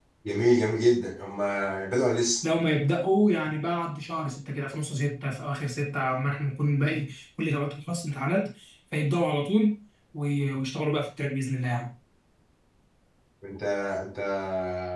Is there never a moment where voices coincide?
Yes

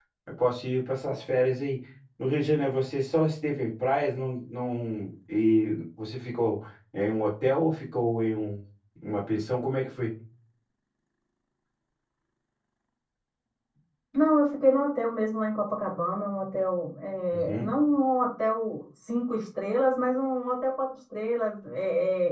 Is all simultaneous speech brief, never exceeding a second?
Yes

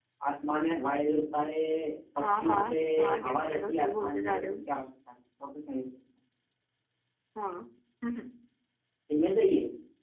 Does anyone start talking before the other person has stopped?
Yes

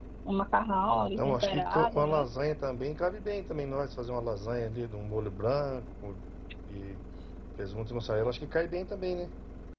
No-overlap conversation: No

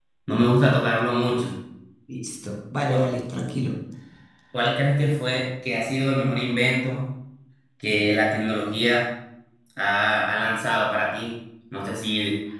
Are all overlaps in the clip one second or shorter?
Yes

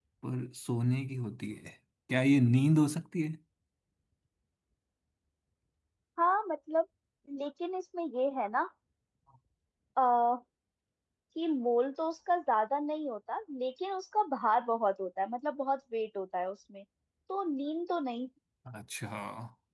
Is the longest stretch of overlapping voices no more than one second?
Yes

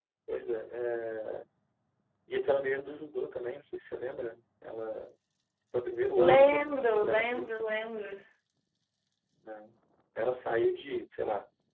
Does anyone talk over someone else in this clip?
Yes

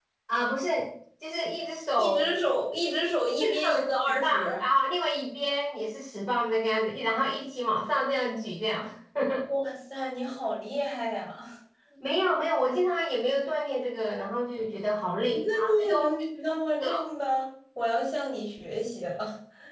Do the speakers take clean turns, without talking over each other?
No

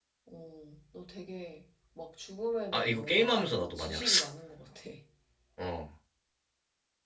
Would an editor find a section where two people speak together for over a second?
Yes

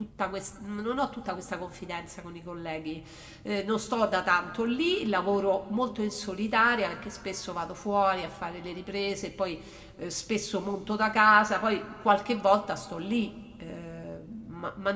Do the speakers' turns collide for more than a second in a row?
No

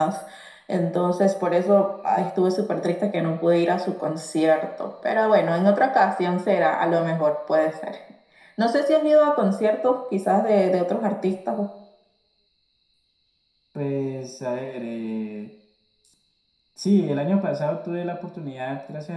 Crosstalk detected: No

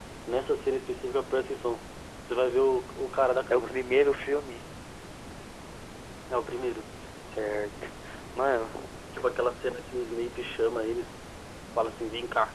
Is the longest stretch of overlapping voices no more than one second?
Yes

